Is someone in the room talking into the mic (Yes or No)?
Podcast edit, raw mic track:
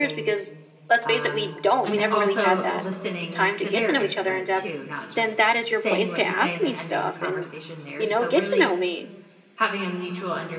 Yes